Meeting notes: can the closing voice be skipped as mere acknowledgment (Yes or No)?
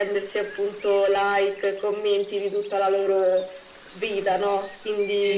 Yes